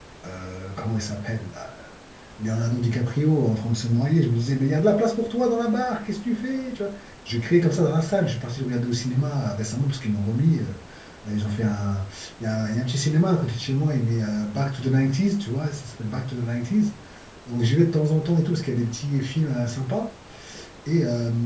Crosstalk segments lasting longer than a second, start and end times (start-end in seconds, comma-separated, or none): none